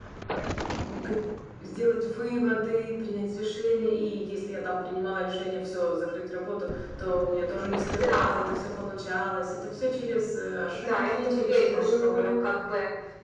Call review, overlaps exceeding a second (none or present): present